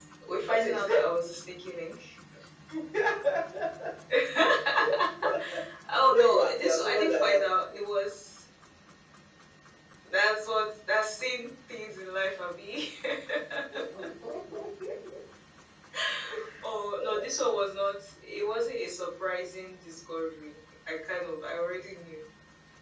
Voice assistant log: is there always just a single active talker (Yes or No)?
No